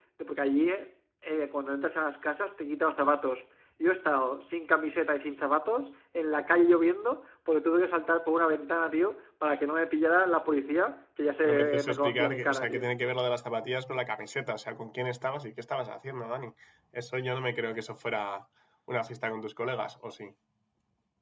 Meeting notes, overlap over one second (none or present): present